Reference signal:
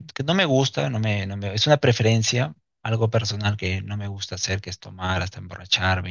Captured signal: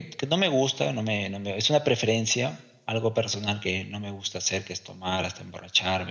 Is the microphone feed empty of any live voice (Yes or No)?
Yes